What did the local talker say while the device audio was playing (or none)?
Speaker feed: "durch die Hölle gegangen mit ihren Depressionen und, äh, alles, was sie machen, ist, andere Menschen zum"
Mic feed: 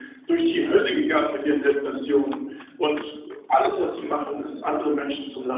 none